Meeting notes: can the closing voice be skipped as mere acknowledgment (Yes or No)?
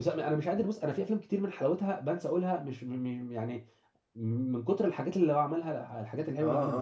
No